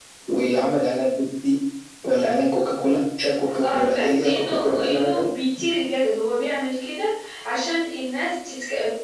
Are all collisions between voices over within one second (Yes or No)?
No